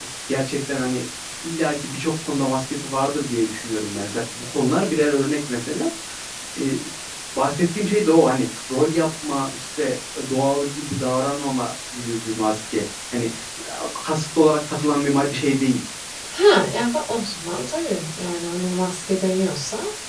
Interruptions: none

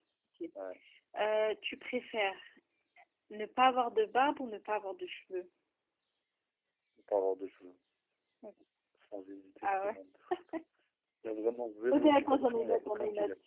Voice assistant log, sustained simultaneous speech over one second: present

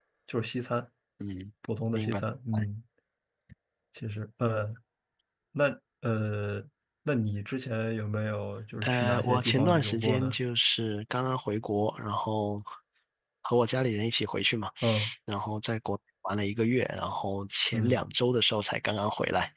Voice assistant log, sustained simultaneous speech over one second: present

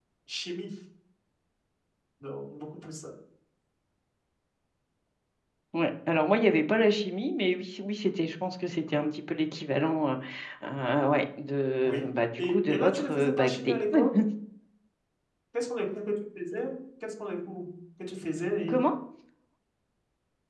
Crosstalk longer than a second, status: present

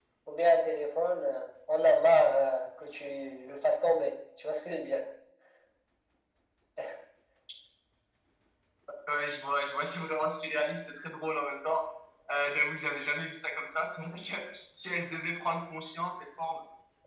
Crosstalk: none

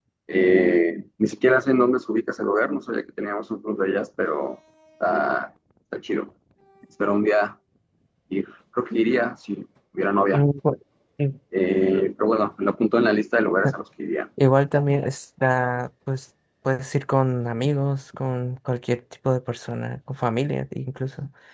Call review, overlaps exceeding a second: none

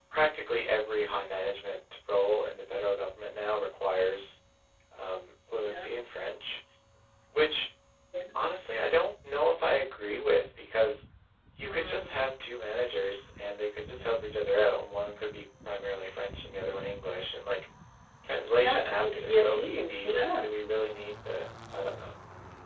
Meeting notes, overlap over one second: present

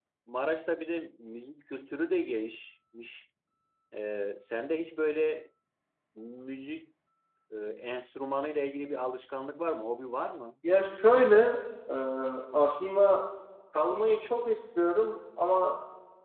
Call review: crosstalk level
none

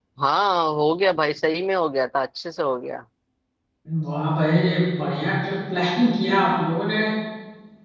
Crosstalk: none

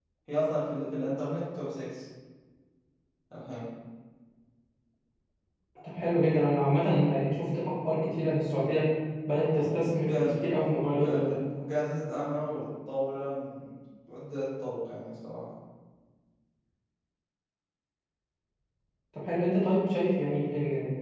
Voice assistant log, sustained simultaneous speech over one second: none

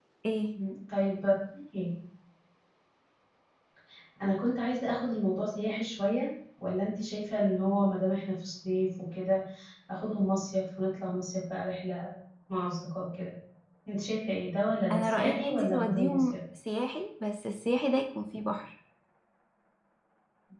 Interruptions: present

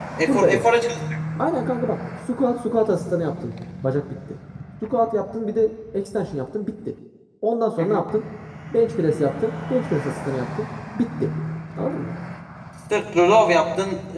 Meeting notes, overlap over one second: none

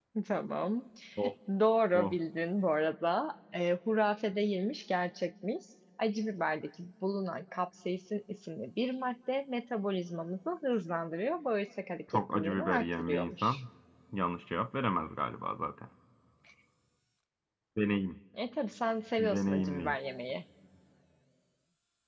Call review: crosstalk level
present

